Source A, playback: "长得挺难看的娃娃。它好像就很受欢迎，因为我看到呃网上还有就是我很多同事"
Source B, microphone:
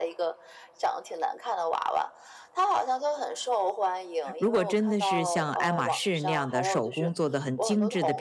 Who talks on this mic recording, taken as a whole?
both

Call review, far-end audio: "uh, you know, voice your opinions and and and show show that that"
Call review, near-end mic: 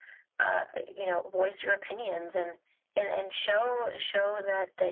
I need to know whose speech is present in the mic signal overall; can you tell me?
echo only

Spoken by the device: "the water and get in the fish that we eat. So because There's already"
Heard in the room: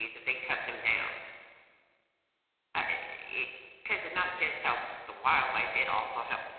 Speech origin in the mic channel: user only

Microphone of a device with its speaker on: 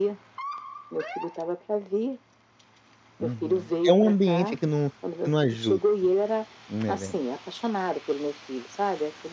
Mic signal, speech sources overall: both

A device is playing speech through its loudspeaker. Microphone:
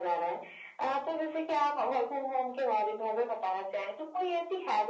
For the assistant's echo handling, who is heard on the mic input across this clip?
echo only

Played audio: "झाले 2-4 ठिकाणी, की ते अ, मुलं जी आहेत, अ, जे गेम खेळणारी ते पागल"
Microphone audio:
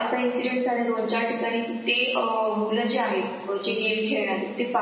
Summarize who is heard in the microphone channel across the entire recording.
echo only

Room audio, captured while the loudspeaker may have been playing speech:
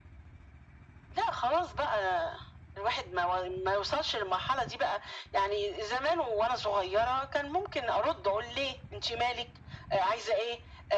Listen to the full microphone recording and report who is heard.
echo only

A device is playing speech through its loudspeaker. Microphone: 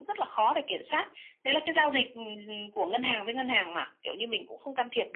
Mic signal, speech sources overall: echo only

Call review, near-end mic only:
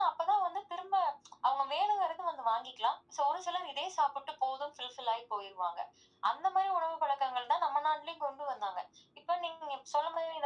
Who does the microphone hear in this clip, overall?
echo only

